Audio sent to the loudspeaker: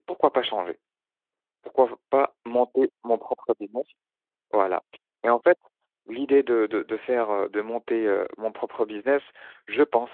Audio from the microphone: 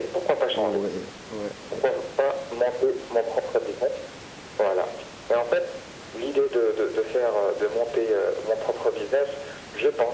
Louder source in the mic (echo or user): echo